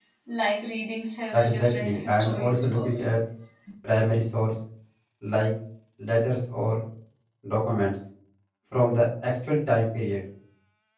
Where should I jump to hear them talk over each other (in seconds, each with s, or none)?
1.3 s